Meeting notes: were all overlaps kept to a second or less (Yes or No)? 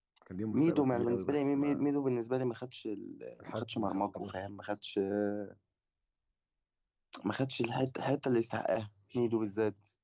No